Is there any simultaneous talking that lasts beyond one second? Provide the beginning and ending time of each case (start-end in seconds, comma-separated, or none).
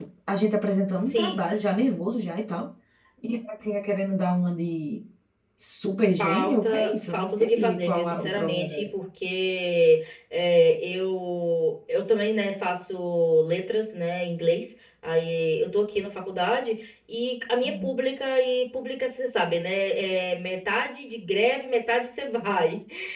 6.2-8.8